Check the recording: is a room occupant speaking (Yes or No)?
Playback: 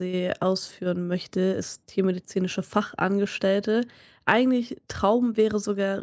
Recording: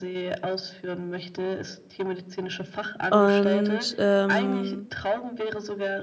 Yes